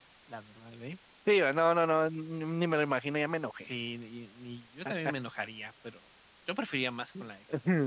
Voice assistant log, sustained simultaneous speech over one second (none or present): none